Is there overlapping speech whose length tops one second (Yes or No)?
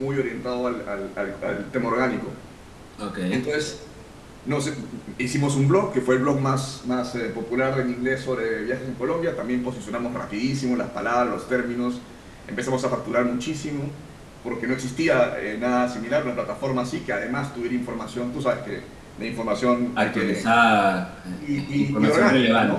Yes